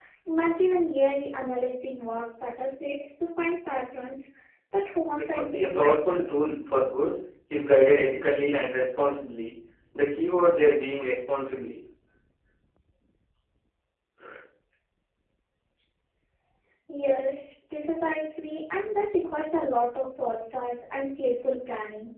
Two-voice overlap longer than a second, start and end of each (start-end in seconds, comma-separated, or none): 5.2-6.5